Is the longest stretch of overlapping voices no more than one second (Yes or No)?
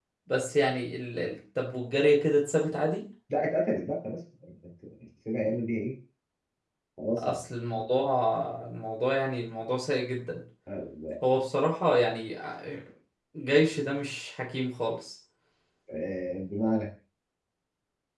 Yes